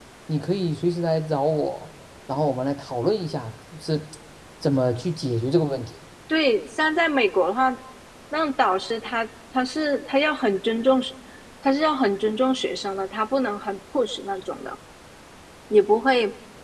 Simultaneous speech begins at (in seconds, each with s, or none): none